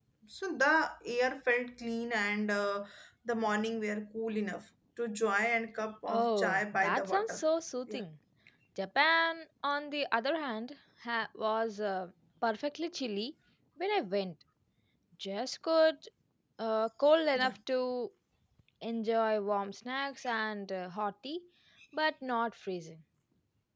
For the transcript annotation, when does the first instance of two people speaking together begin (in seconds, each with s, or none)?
6.1 s